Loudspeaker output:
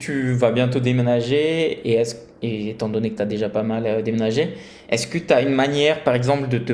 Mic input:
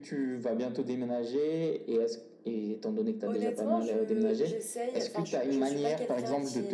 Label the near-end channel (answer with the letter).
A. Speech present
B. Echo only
A